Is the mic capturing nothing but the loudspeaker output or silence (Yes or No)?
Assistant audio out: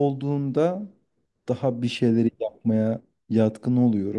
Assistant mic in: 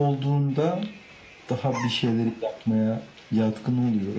Yes